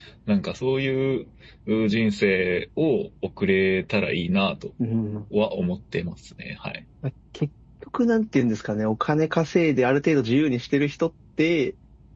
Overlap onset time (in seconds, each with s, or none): none